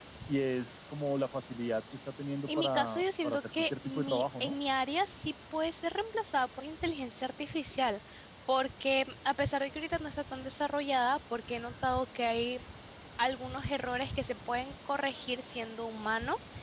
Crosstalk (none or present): present